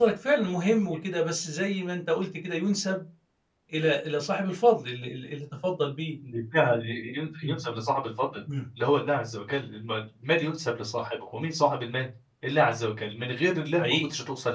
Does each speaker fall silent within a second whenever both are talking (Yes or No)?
Yes